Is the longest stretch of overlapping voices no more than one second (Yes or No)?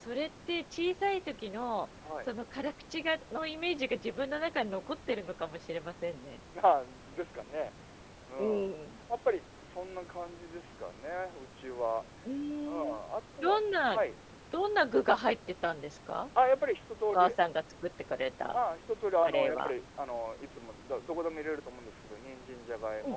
Yes